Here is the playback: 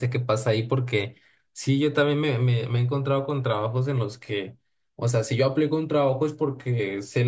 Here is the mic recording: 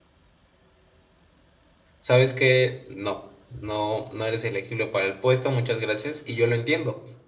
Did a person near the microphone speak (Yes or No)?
Yes